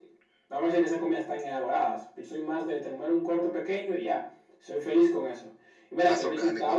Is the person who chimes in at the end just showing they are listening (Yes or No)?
Yes